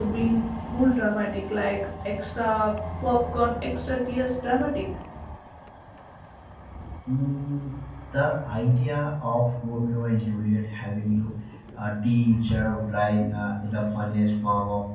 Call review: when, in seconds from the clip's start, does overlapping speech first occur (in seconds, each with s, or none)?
none